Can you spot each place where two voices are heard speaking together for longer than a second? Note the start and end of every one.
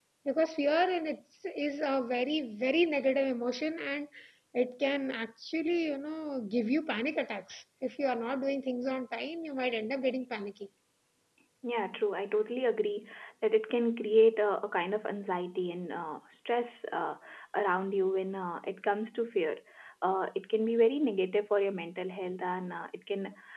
none

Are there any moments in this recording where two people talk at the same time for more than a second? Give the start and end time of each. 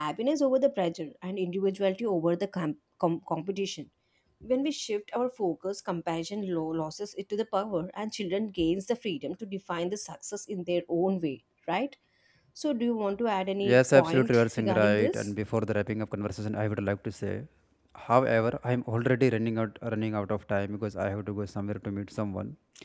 13.6-15.2

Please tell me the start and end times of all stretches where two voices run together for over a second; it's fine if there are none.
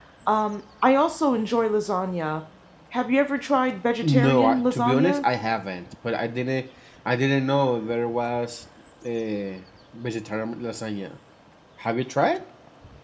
4.0-5.2

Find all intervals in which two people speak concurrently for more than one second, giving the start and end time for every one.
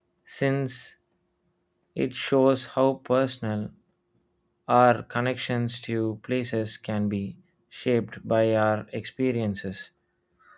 none

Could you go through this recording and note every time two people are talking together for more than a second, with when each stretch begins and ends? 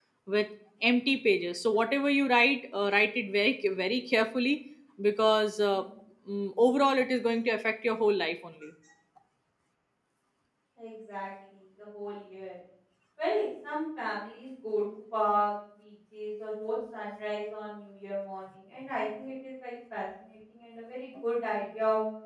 none

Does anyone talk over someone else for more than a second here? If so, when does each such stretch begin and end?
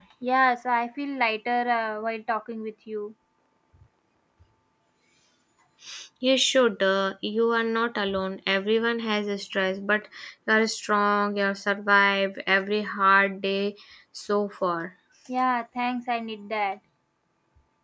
none

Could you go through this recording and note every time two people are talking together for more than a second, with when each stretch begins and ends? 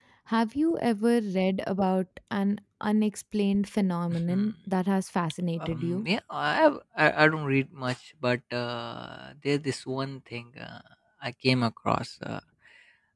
none

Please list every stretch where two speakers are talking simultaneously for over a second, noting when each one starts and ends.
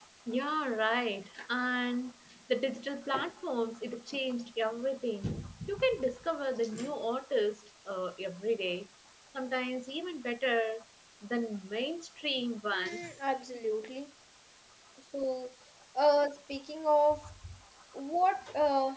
none

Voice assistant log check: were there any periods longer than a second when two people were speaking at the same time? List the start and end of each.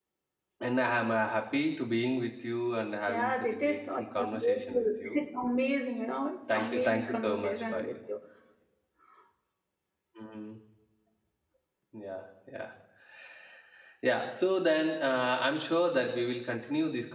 3.1-5.2, 6.5-7.9

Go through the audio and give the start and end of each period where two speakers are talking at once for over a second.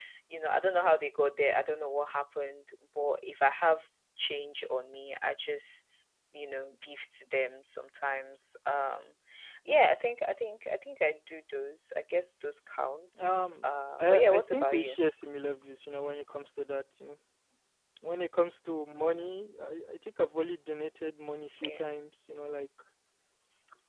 13.2-15.0

